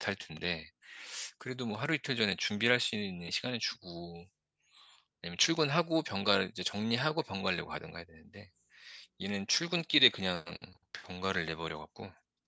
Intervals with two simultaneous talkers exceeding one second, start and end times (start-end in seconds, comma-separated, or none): none